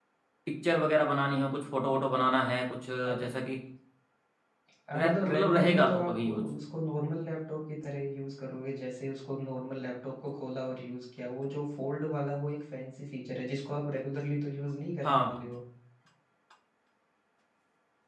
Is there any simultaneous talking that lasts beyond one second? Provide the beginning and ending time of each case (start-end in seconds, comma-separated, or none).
4.9-6.5